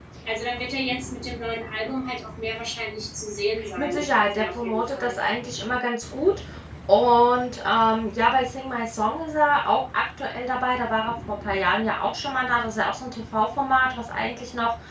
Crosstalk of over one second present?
Yes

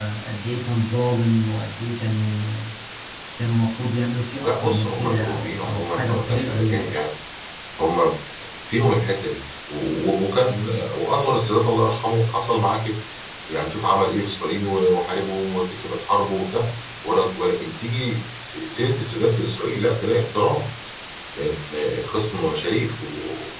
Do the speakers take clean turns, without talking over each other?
No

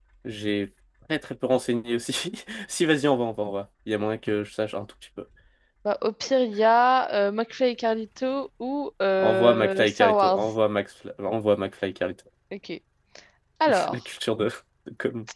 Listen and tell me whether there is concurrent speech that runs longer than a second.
Yes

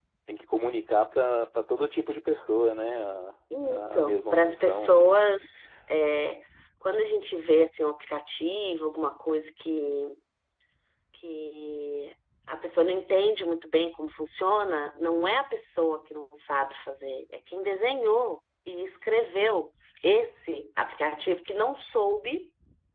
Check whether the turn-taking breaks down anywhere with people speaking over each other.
Yes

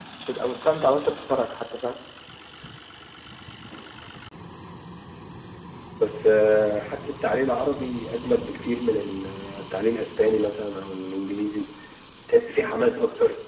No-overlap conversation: Yes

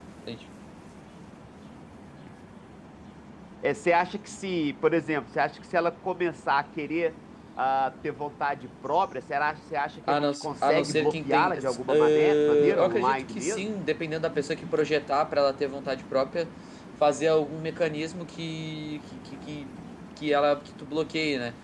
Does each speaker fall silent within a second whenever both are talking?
No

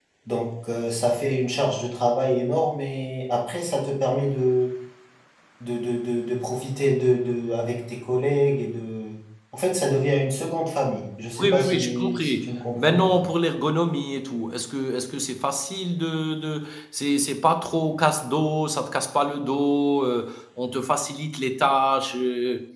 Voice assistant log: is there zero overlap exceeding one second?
No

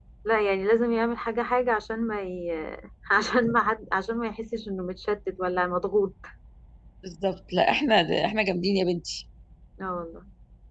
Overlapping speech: No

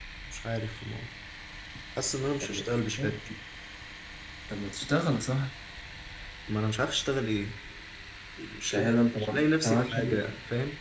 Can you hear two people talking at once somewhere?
Yes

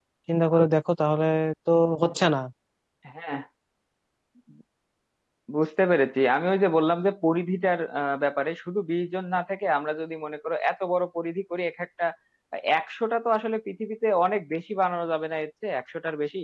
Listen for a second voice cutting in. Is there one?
No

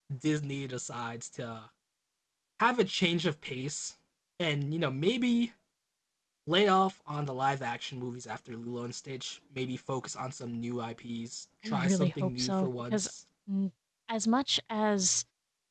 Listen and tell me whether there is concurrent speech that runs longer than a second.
Yes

